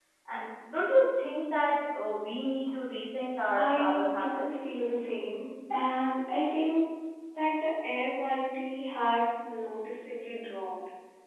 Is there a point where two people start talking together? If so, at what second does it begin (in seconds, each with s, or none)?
3.5 s